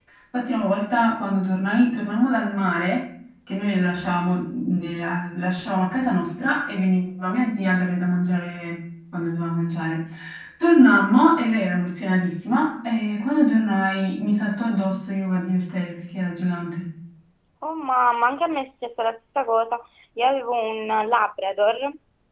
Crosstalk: none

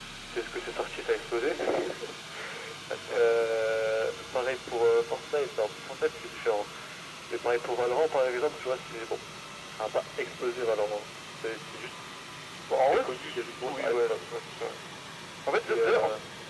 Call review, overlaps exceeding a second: present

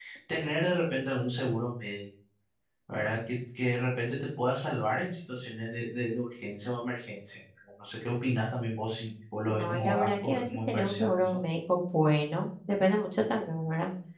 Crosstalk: present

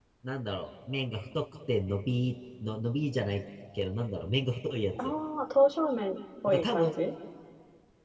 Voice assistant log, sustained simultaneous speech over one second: none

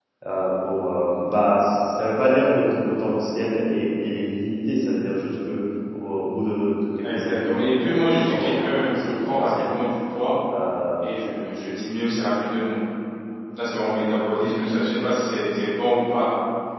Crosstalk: present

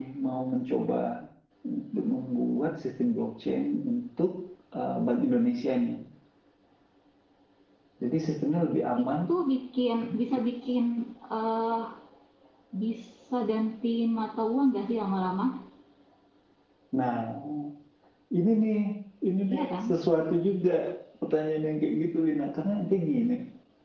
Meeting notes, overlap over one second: none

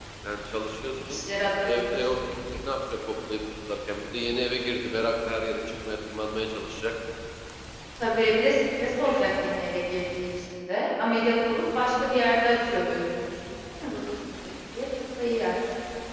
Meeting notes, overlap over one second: none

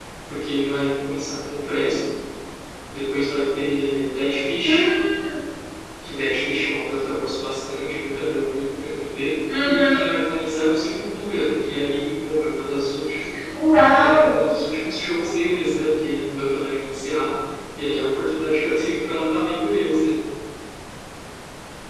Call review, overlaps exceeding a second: none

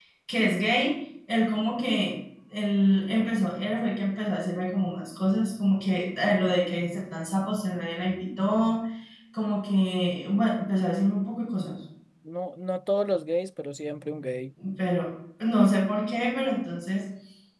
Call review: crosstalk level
none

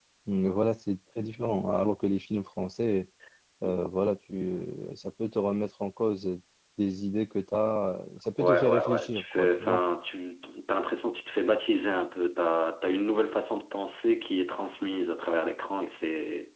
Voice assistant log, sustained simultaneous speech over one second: present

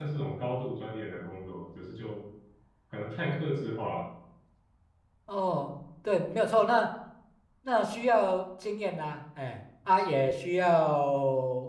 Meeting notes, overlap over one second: none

